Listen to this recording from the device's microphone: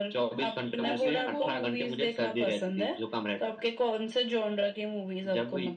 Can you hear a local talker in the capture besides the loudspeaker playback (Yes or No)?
Yes